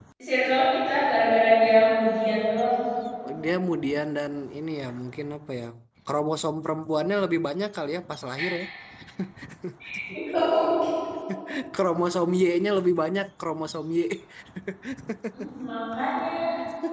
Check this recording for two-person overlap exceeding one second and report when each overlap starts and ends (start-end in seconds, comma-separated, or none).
none